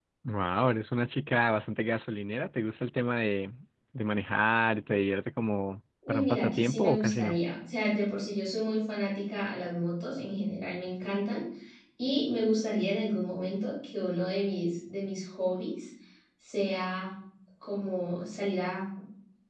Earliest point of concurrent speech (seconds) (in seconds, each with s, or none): 6.0 s